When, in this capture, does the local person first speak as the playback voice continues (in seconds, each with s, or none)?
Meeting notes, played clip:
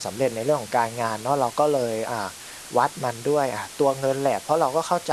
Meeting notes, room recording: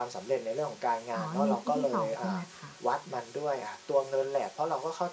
1.1 s